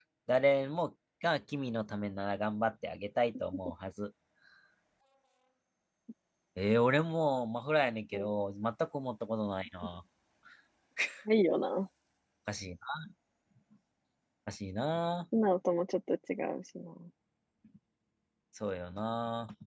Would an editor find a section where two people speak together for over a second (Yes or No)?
No